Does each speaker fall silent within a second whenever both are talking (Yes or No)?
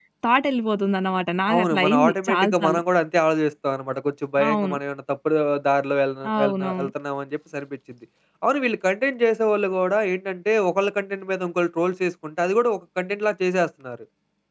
No